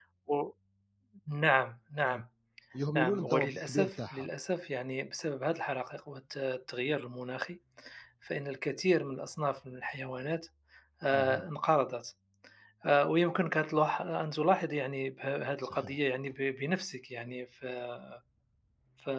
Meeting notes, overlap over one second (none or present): present